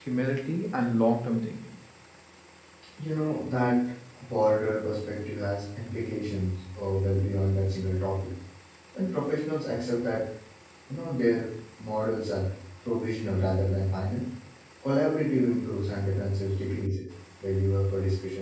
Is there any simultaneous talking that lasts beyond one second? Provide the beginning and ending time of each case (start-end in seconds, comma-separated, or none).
none